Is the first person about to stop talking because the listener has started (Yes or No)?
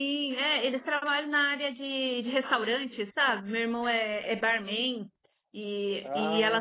No